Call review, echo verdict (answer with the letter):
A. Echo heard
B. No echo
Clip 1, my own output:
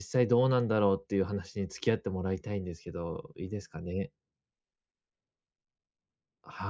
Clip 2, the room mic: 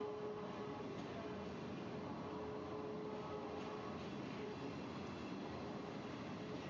B